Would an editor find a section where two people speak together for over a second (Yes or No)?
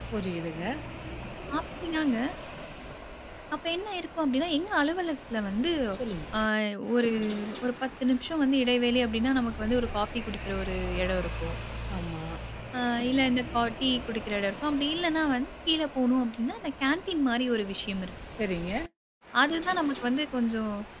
No